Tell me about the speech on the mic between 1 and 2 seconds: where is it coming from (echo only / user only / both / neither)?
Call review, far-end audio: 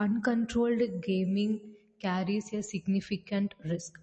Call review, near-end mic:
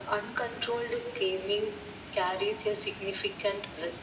echo only